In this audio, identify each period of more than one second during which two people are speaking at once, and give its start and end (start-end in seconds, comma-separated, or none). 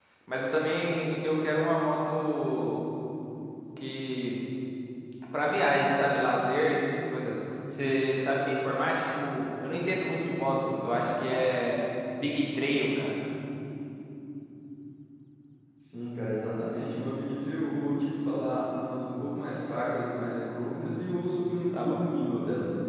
none